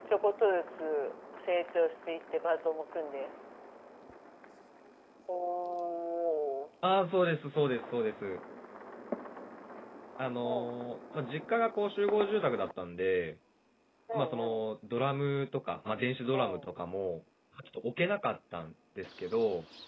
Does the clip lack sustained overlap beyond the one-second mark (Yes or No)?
Yes